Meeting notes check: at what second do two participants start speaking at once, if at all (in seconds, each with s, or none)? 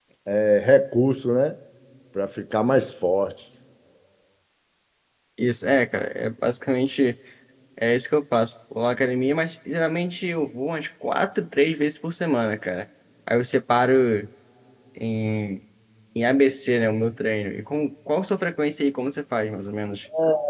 none